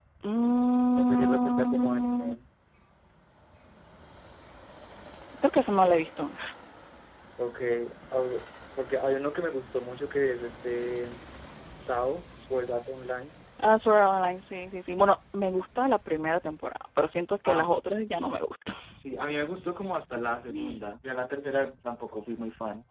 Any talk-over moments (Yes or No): Yes